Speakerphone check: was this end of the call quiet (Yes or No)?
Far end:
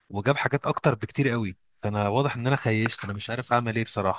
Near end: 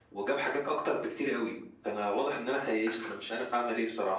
Yes